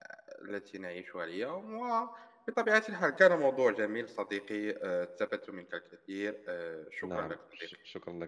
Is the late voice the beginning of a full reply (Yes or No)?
Yes